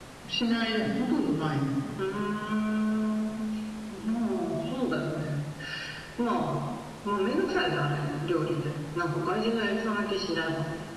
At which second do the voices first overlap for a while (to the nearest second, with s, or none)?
none